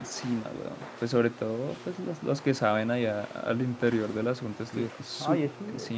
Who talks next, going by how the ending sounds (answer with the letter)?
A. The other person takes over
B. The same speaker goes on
A